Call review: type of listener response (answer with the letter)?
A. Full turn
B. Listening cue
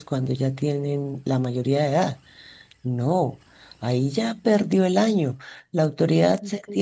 B